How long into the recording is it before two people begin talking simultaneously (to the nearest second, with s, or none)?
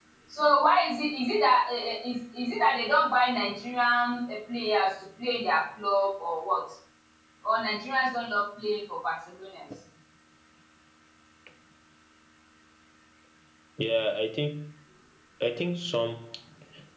none